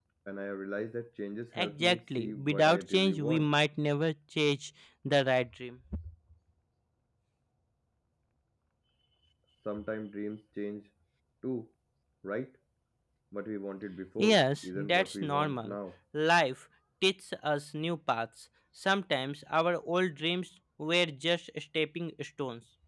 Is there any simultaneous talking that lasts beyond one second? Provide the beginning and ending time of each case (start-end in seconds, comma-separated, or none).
1.6-3.5, 14.2-15.8